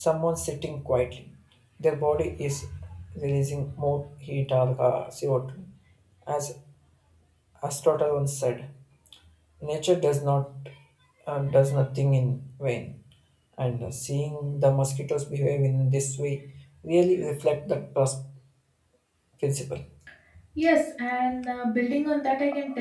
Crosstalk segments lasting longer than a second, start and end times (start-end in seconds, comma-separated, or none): none